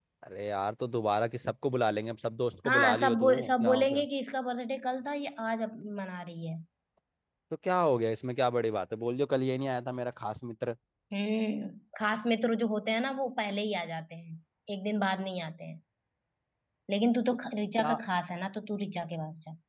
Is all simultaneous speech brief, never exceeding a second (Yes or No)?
No